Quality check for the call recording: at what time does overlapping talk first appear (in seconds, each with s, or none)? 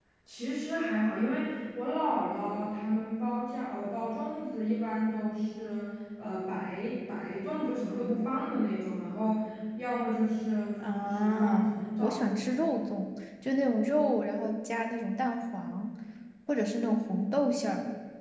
10.8 s